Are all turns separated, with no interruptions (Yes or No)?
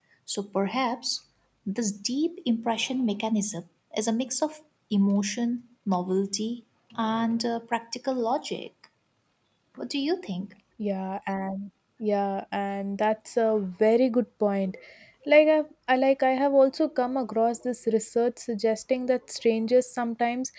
Yes